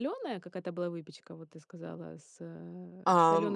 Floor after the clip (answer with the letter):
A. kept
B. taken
B